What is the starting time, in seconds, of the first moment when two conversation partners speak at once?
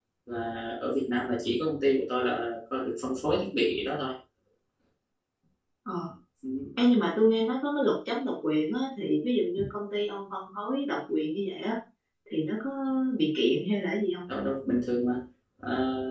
none

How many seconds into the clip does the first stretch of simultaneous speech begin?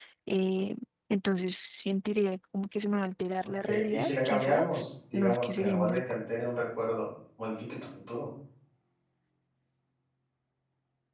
3.6 s

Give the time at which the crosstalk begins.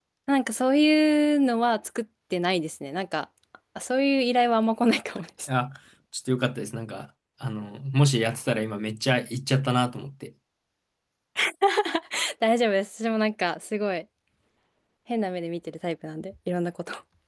none

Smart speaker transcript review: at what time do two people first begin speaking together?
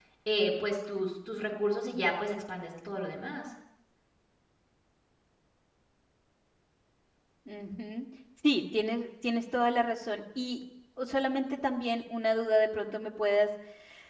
none

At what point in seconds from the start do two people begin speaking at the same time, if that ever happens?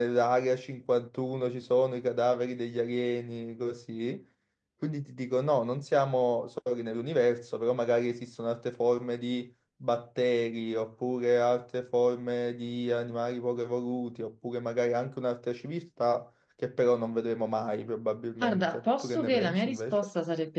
18.4 s

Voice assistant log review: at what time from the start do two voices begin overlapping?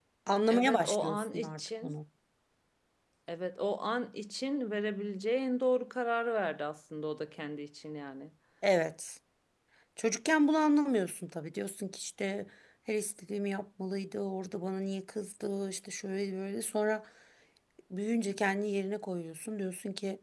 0.5 s

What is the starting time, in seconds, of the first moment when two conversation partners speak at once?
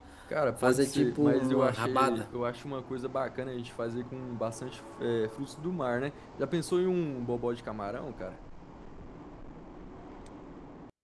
0.6 s

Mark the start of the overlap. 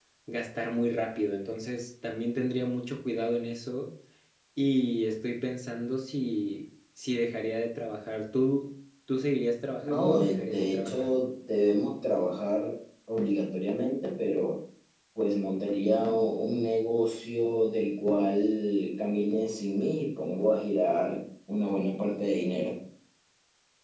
9.8 s

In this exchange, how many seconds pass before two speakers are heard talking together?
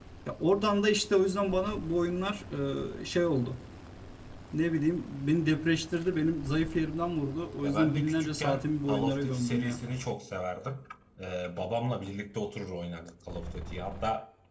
7.6 s

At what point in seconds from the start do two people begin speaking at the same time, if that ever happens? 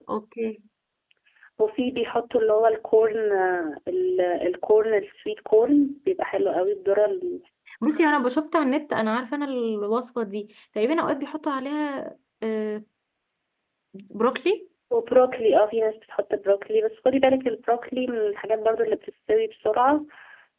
none

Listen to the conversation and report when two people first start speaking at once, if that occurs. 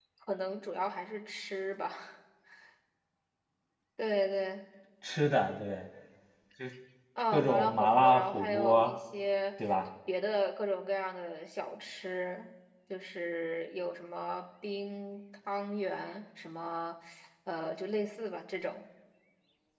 7.3 s

